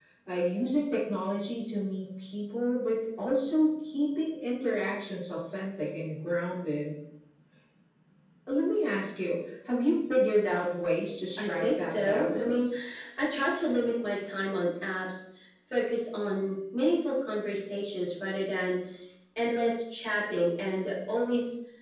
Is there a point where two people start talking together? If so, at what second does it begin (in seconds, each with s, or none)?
11.4 s